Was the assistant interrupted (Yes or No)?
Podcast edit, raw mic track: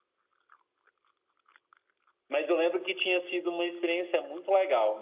Yes